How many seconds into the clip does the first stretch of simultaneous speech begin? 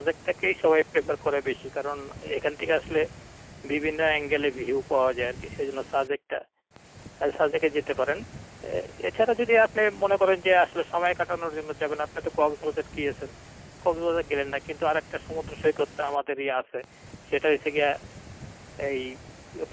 none

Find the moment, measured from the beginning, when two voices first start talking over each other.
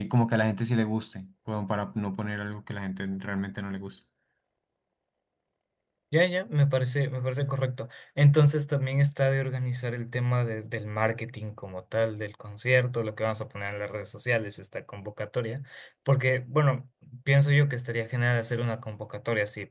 none

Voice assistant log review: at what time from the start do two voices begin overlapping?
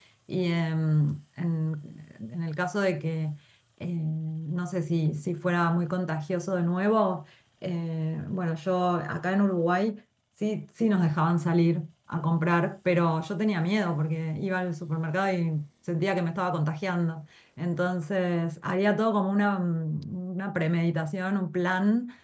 none

